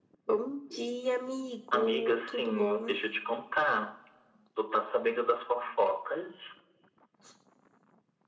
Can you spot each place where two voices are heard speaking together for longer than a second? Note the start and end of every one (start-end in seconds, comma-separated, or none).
1.7-2.9